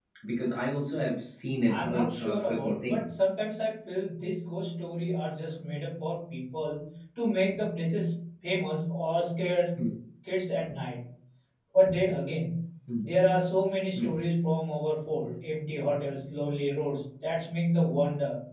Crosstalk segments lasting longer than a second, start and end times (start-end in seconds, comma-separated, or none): 1.7-3.2